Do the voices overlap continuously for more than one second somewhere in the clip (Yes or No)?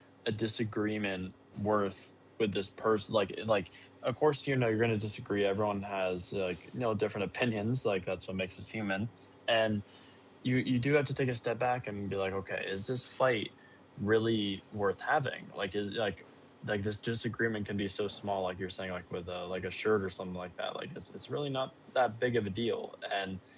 No